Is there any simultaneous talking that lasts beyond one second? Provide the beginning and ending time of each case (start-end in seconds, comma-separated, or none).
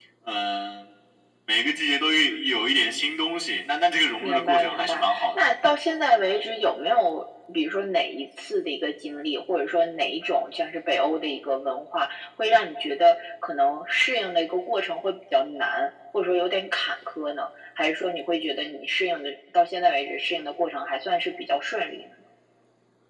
4.2-5.4